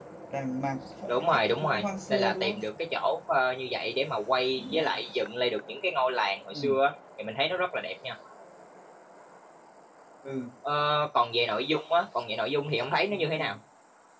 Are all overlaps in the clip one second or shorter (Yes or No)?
No